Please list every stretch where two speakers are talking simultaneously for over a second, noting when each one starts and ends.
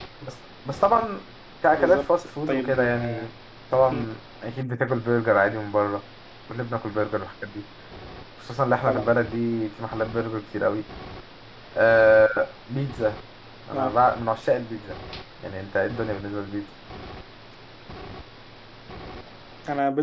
1.8-3.3

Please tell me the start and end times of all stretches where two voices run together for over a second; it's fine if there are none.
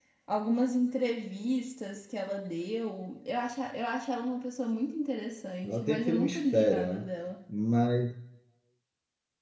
5.6-7.1

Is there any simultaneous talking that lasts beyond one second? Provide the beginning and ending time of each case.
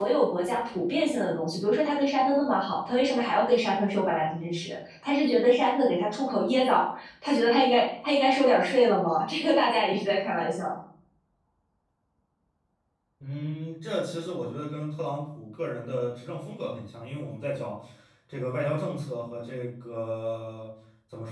none

